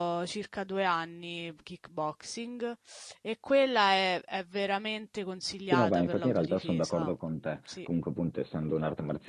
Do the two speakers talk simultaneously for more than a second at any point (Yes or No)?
Yes